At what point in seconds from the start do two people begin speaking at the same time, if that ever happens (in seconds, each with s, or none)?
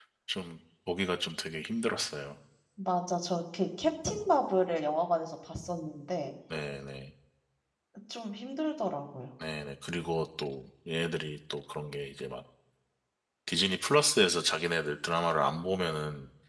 none